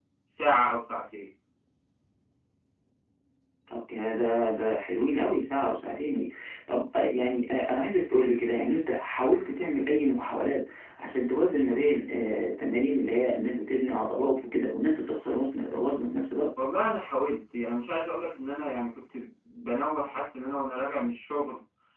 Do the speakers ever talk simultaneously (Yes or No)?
No